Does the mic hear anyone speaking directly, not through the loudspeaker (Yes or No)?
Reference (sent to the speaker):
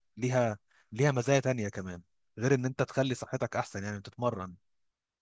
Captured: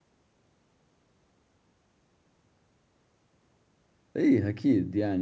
Yes